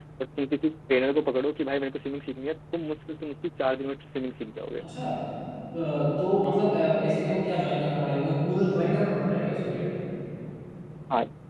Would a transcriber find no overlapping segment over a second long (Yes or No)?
Yes